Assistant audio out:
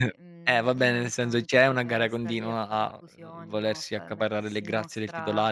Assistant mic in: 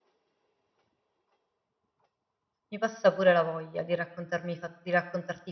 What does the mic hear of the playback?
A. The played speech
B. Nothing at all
B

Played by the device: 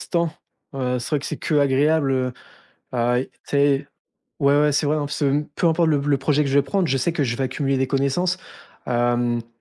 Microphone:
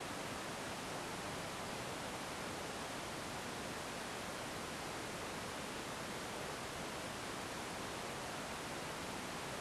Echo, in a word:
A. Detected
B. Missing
B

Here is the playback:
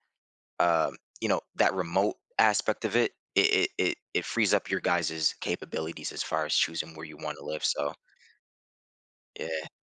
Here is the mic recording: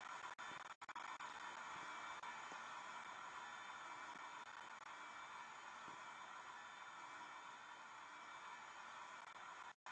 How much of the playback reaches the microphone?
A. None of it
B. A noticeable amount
A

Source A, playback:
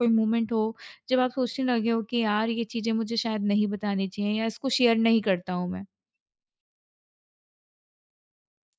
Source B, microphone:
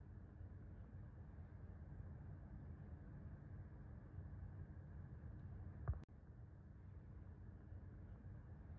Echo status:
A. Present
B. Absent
B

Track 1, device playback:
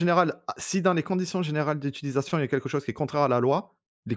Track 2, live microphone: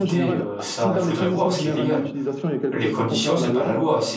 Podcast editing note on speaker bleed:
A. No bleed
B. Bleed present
B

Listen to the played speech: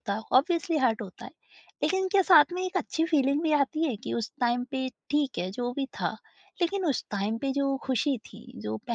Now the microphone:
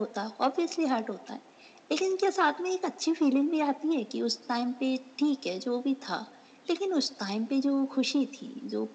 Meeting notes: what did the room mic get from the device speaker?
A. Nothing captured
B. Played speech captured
B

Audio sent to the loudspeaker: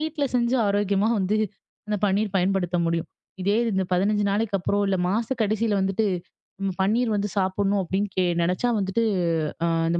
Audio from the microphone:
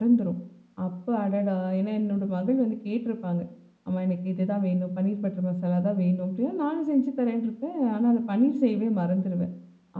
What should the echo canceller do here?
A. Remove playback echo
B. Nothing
B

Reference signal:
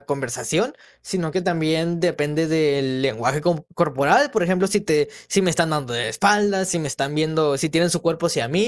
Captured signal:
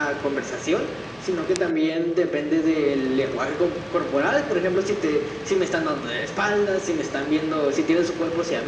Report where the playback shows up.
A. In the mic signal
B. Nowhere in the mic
A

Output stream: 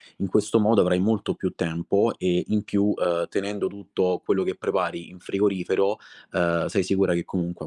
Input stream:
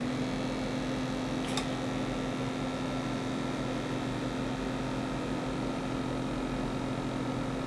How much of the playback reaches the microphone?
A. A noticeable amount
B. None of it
B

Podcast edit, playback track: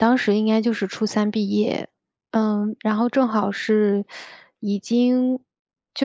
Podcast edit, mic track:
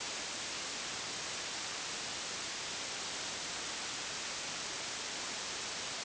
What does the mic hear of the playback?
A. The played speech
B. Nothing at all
B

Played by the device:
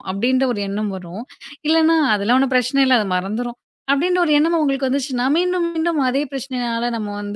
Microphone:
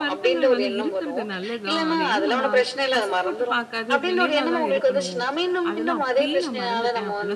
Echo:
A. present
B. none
A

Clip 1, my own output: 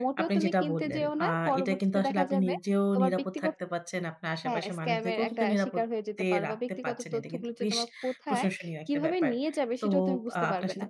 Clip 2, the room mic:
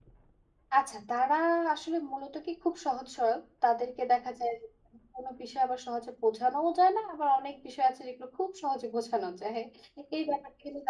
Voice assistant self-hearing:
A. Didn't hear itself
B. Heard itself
A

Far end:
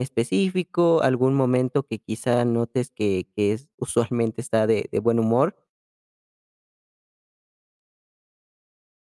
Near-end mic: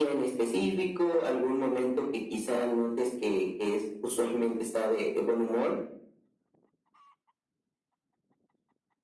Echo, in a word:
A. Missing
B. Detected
B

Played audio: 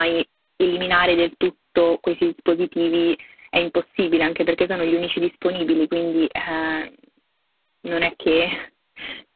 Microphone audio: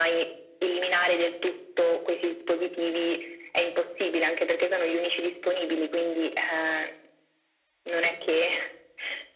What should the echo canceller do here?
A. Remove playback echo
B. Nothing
A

